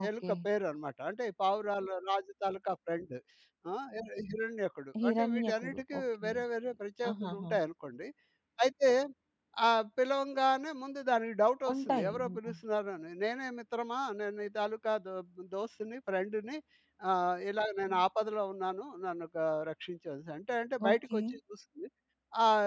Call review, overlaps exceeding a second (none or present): present